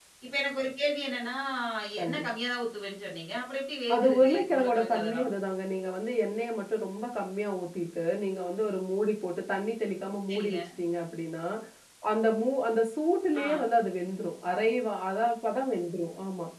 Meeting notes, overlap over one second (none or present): present